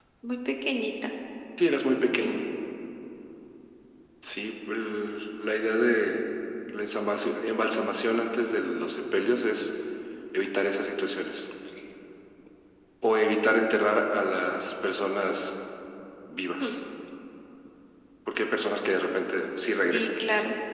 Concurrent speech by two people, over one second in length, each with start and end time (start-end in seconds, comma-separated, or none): none